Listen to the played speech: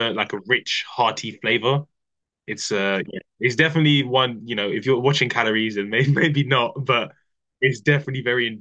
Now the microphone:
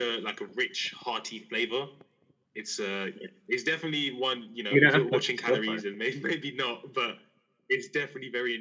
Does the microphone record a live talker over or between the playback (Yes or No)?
Yes